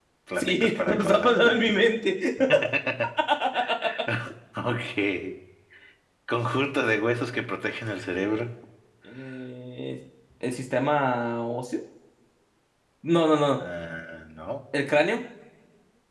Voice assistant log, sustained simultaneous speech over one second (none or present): present